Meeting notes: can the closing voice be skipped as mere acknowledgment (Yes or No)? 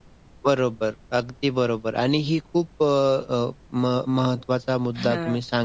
Yes